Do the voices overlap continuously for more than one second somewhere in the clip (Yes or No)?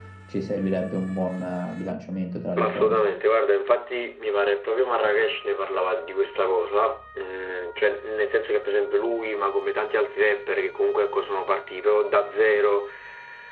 No